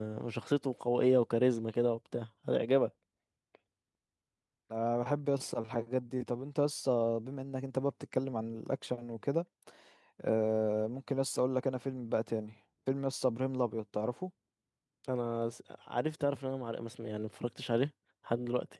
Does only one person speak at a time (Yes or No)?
Yes